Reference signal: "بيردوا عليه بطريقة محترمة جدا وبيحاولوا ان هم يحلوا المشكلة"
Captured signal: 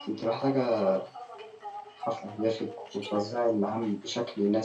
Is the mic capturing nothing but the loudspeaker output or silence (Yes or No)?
No